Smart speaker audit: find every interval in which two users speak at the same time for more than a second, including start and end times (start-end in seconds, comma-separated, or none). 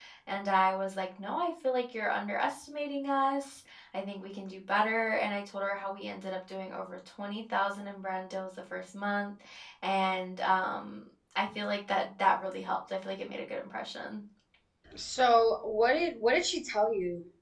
none